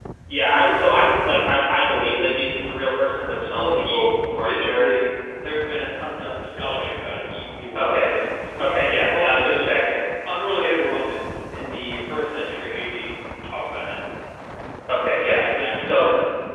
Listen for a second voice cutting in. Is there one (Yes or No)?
Yes